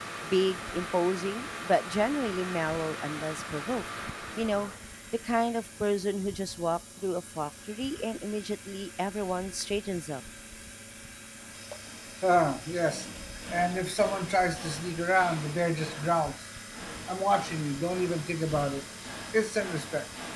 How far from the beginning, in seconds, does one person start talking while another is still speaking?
none

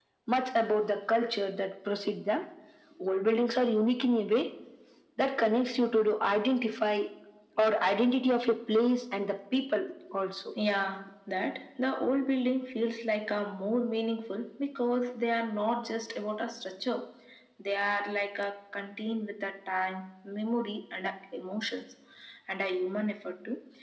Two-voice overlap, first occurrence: none

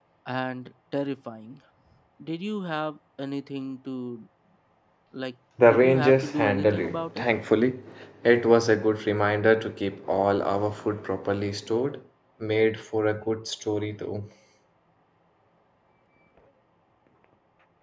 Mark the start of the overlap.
5.7 s

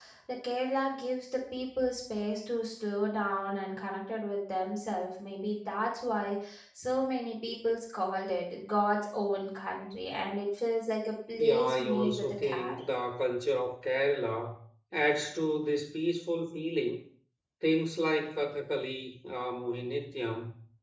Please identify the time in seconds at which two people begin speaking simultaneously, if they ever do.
11.4 s

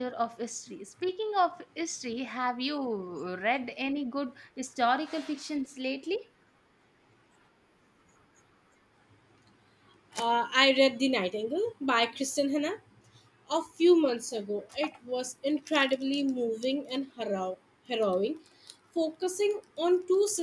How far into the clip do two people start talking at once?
none

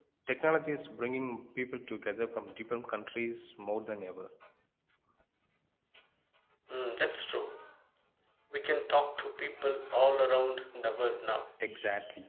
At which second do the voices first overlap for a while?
none

